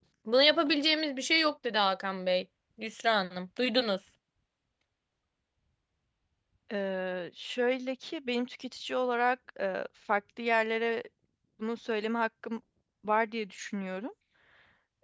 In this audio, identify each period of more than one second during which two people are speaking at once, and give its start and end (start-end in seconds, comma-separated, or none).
none